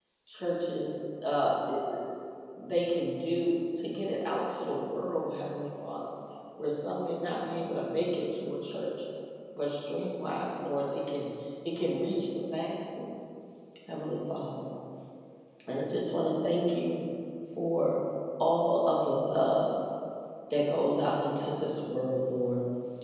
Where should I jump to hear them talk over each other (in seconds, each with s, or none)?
none